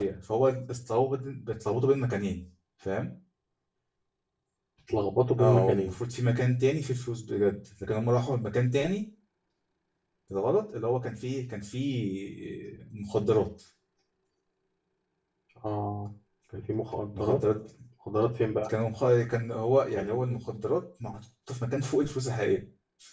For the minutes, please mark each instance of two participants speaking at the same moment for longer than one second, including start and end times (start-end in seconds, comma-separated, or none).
none